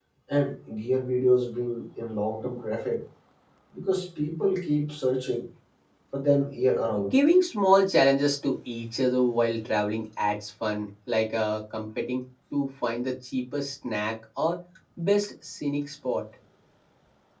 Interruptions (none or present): none